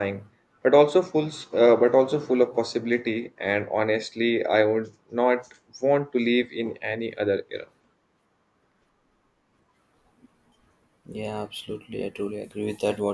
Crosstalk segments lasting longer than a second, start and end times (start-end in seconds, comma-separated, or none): none